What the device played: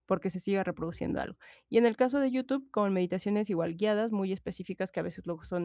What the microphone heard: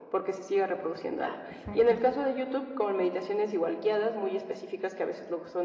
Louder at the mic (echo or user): echo